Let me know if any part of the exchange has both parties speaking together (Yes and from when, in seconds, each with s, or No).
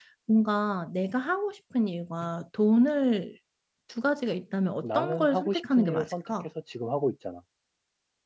Yes, from 4.8 s